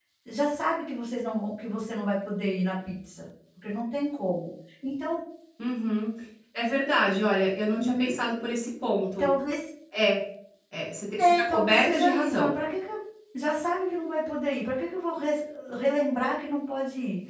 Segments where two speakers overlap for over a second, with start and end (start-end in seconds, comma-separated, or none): 11.2-12.6